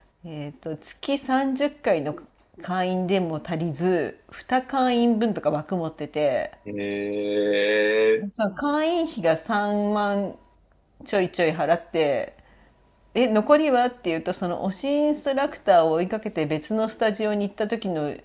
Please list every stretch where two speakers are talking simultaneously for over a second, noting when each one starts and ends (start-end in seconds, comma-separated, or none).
none